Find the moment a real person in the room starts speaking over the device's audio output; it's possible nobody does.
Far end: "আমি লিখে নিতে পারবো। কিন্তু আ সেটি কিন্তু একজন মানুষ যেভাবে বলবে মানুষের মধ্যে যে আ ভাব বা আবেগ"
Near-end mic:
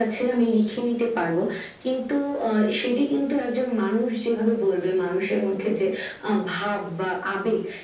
none

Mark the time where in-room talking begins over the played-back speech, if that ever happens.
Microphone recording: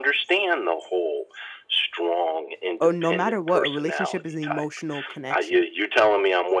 2.8 s

